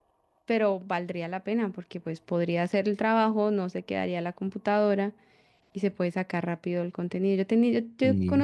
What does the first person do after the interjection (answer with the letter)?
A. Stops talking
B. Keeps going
B